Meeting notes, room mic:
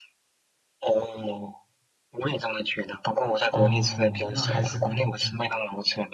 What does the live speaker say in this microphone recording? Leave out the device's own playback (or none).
哦，那还是故意的。